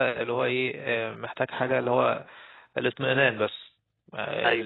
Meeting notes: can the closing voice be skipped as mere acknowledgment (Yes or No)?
Yes